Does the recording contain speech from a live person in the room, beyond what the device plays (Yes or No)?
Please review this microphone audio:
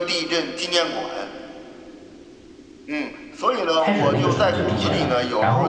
Yes